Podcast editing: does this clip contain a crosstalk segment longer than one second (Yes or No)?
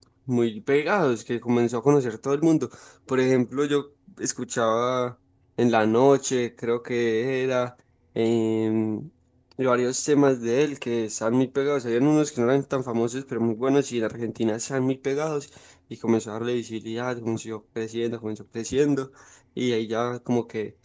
No